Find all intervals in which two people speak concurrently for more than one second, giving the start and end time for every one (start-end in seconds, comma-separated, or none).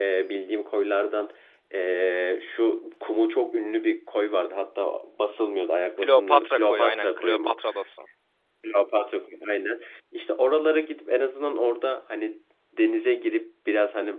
6.0-7.6